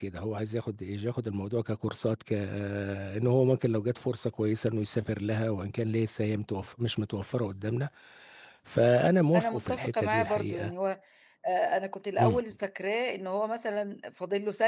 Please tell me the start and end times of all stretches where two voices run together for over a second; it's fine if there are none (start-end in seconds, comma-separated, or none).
9.3-10.7